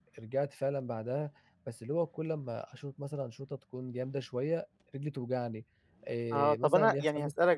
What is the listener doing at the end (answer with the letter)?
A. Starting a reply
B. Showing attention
A